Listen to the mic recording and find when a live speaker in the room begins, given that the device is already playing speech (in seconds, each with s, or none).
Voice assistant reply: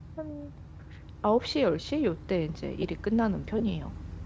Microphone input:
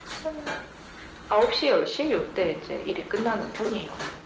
none